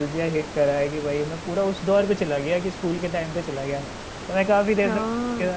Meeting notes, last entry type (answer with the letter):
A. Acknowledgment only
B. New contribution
A